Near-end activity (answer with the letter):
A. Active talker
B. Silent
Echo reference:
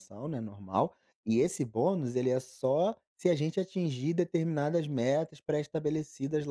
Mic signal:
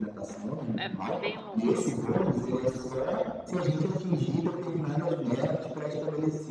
A